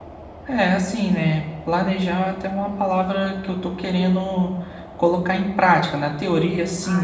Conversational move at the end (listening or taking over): listening